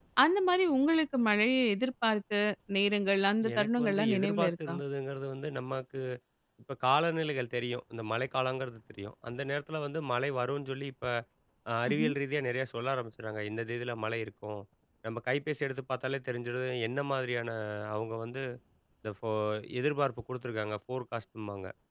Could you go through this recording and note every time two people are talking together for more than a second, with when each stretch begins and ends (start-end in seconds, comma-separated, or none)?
3.5-4.8